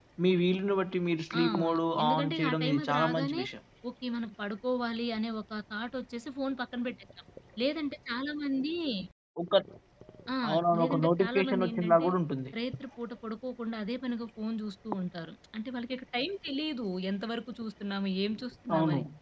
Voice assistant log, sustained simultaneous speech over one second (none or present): present